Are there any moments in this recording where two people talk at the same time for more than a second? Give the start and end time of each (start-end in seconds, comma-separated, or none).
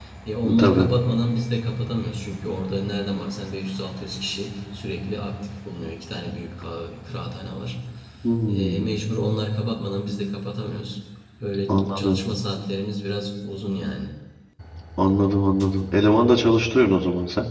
none